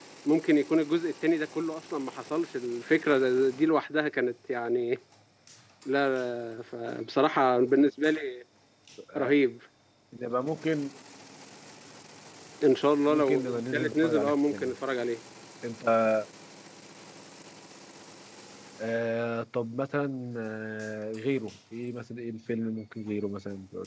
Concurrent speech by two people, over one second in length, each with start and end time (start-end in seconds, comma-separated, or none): 13.1-14.7